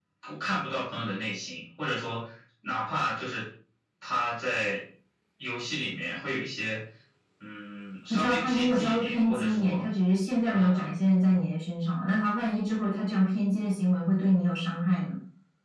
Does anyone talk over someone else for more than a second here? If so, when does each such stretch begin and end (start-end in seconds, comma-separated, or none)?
8.1-9.8